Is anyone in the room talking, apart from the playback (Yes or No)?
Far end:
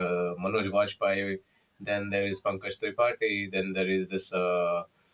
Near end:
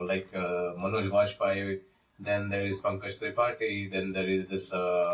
No